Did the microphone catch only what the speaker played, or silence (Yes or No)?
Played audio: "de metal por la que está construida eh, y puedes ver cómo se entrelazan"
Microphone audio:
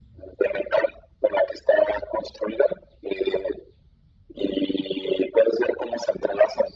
Yes